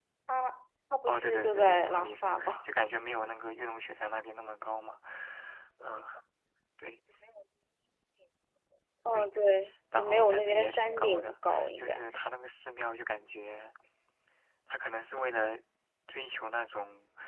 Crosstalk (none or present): present